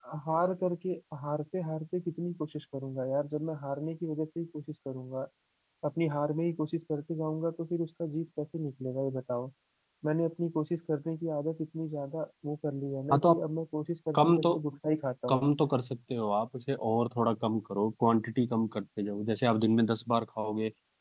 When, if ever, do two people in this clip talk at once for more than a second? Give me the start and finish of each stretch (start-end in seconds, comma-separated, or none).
none